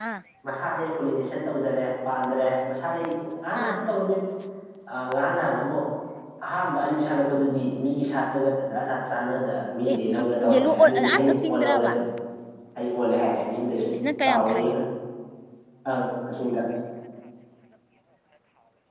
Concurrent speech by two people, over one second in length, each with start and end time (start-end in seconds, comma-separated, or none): 10.5-11.9